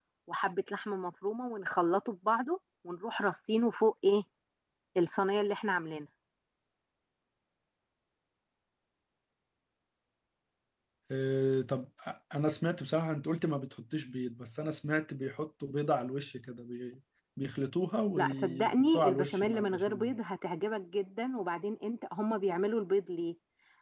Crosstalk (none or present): present